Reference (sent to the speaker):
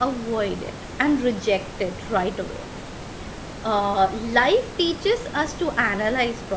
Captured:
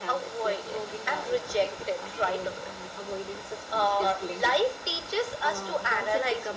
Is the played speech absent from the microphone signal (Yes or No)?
No